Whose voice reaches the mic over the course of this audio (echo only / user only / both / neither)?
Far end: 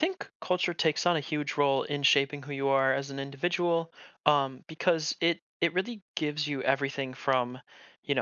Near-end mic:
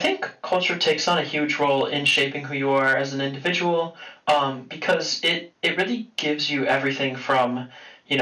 echo only